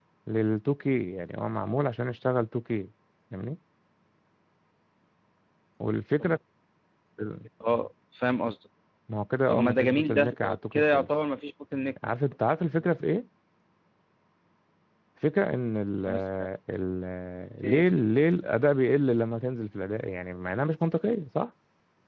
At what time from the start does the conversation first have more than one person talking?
9.5 s

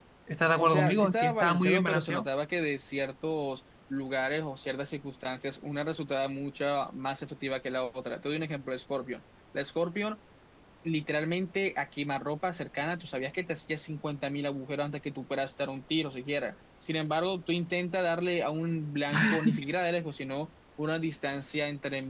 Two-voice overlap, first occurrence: 0.6 s

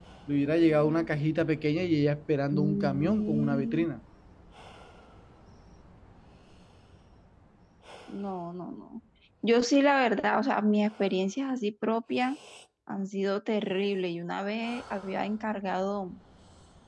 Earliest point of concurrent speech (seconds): 2.5 s

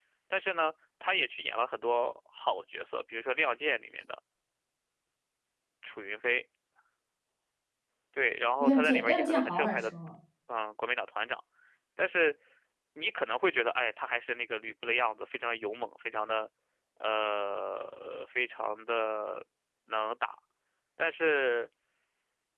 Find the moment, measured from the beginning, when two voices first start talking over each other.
8.6 s

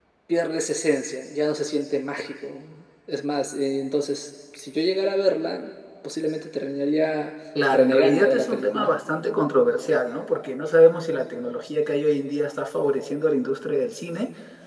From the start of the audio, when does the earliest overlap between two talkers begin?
7.5 s

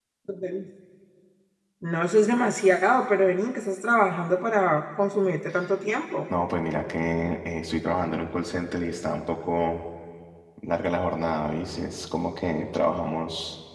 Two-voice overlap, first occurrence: none

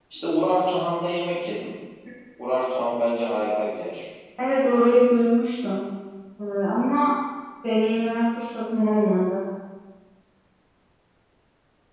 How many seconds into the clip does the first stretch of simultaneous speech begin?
none

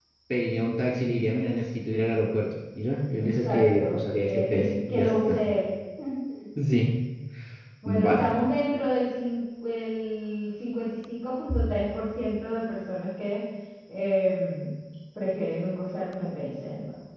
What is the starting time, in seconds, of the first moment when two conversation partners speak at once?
3.2 s

